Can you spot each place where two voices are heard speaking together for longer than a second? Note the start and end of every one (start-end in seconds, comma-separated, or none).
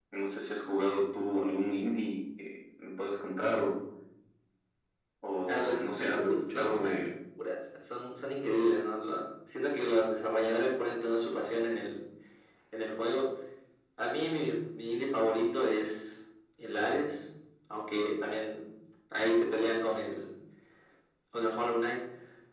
5.5-6.9